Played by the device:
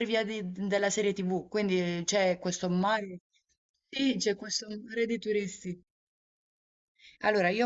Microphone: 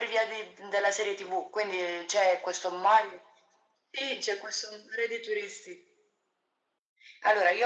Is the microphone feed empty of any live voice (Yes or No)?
Yes